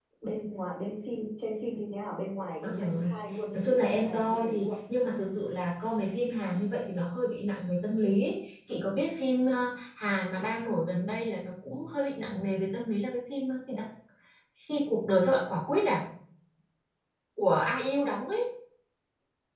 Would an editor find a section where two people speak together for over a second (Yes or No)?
Yes